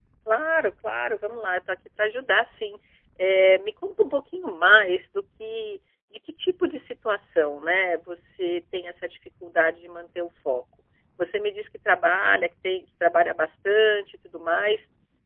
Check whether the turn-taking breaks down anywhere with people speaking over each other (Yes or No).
No